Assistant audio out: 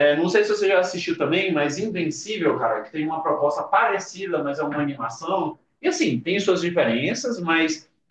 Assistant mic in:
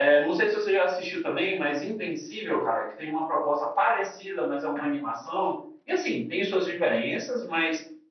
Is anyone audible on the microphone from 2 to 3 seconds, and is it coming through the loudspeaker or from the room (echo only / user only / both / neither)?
echo only